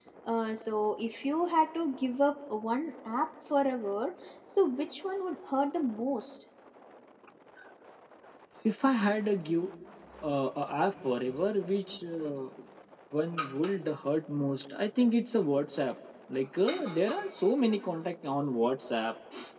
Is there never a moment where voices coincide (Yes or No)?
Yes